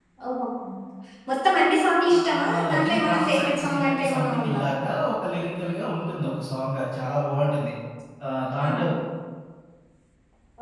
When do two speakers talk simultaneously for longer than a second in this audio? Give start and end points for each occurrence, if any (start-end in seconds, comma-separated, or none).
2.2-4.6